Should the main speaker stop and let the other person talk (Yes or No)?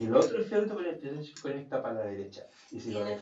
No